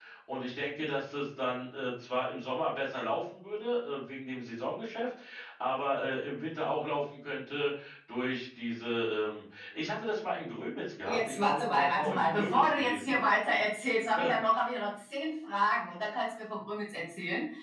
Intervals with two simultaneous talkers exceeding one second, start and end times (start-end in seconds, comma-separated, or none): 11.1-13.2